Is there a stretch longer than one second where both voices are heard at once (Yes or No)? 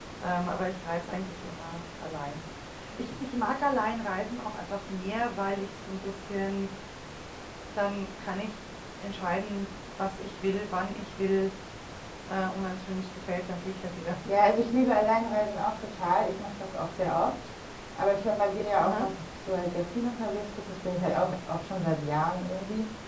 No